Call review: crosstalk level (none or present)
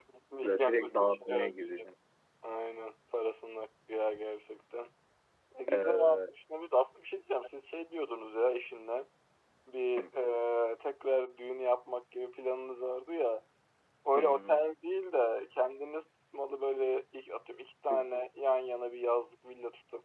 present